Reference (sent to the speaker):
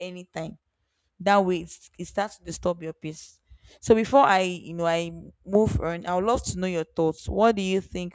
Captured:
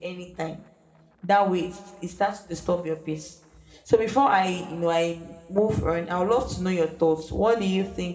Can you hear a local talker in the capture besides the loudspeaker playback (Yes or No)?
No